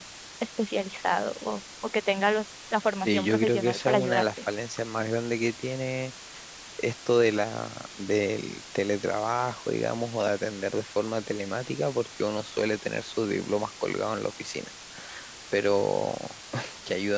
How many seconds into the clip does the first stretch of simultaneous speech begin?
3 s

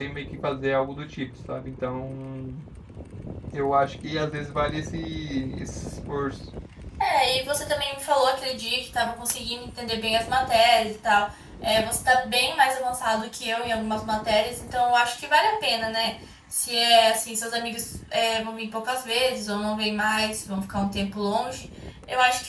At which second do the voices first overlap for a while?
none

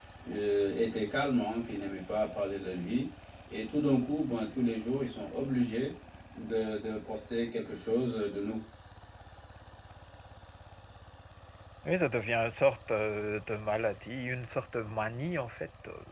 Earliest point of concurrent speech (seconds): none

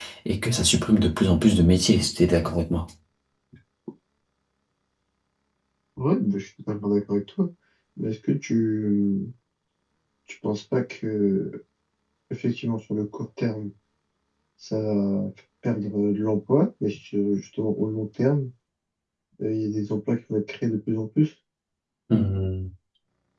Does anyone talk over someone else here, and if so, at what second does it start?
none

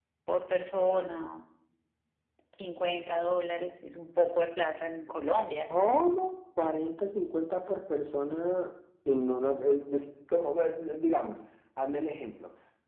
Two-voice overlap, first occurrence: none

